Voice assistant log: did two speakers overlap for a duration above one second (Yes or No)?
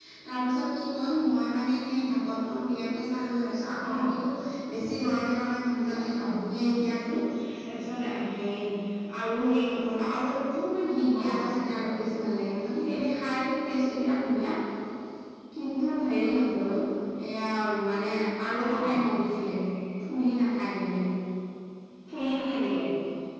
No